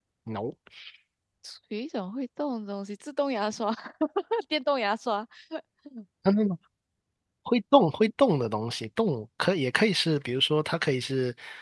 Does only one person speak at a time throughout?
Yes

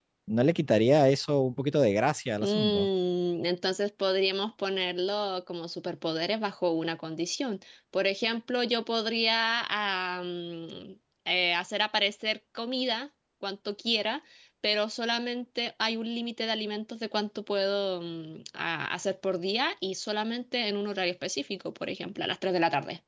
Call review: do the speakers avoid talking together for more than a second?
Yes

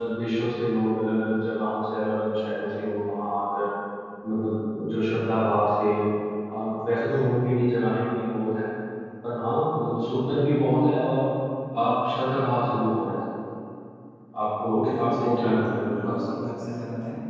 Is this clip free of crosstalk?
No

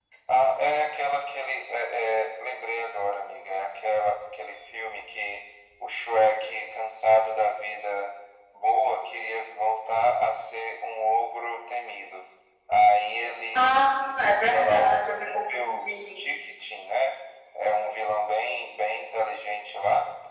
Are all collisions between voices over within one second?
No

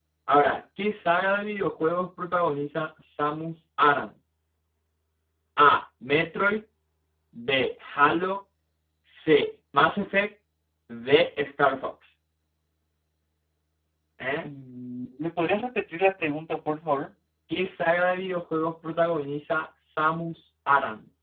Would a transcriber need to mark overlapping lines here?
No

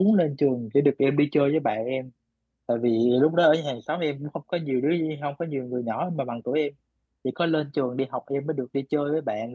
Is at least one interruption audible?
No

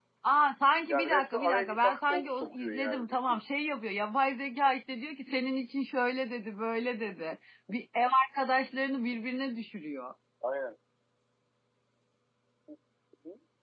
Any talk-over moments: Yes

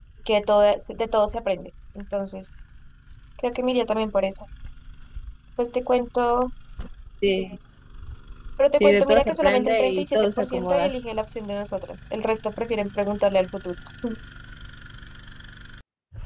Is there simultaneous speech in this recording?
Yes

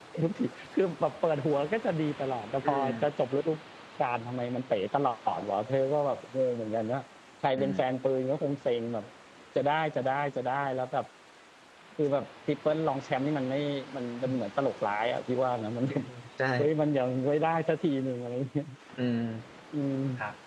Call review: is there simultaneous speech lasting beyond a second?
No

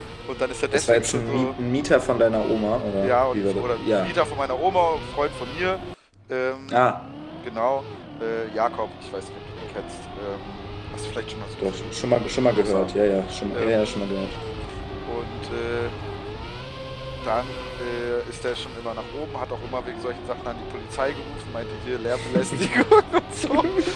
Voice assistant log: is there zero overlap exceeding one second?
No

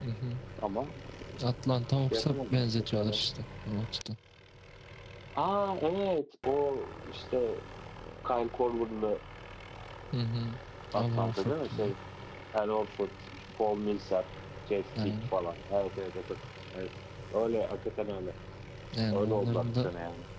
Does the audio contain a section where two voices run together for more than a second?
Yes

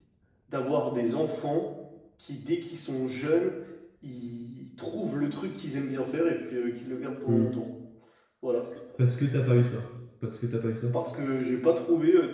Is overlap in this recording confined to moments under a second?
Yes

